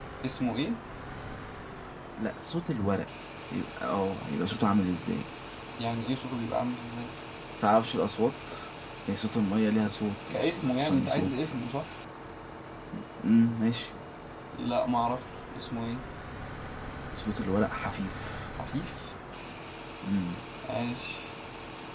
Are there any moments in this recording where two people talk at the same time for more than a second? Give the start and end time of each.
10.3-11.6

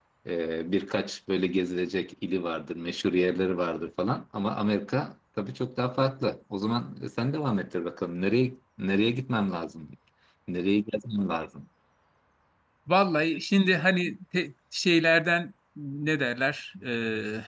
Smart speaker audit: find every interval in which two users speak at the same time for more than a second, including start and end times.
none

